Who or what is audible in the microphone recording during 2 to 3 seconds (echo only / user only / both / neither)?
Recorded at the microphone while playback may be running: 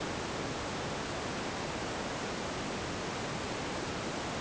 neither